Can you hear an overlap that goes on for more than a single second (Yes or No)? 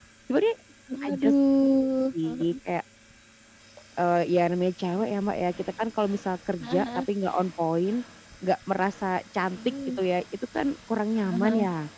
No